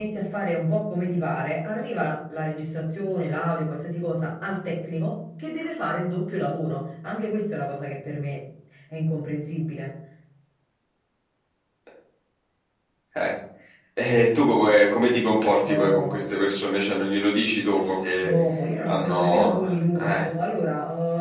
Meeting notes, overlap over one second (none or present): present